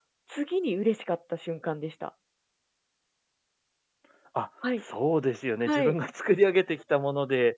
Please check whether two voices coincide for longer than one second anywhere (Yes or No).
No